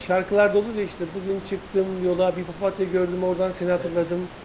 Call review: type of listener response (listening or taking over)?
listening